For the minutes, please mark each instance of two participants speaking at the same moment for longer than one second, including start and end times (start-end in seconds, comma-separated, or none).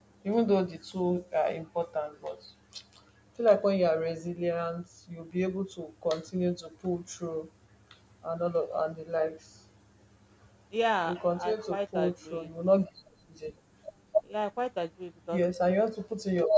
11.1-12.5